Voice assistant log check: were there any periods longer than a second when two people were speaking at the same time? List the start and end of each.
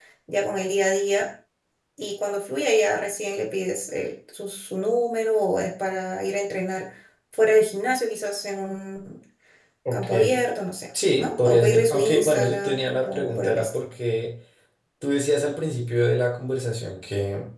11.2-13.8

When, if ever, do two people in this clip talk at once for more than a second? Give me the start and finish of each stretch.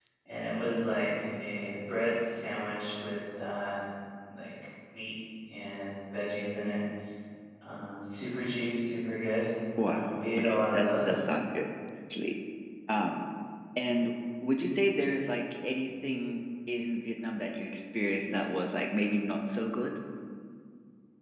9.8-11.2

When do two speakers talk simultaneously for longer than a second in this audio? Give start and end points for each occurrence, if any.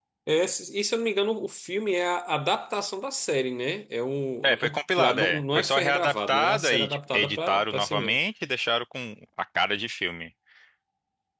4.4-8.2

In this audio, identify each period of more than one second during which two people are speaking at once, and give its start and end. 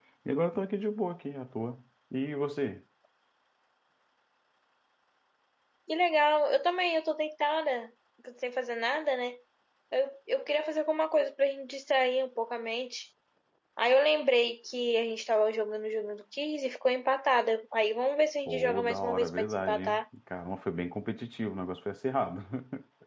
18.5-20.0

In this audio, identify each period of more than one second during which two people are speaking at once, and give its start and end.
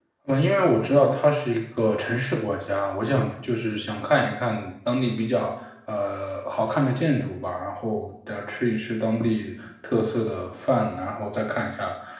none

